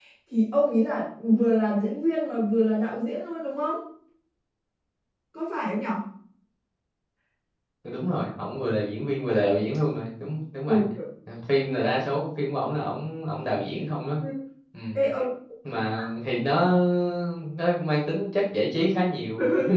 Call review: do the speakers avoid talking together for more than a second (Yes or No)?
Yes